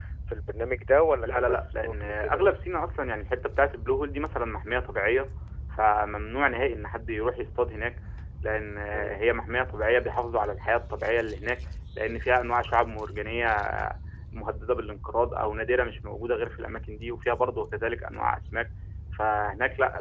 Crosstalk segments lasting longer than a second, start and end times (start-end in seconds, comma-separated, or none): 1.2-2.5